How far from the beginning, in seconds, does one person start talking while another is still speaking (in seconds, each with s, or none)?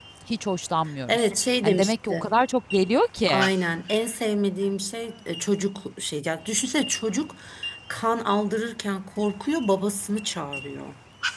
1.1 s